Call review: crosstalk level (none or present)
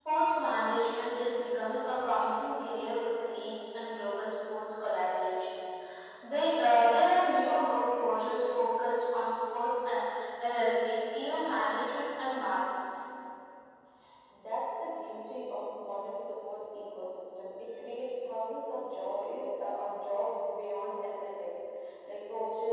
none